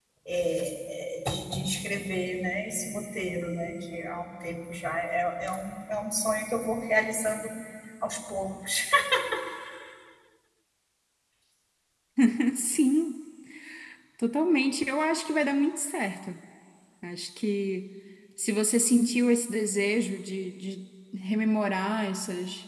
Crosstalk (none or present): none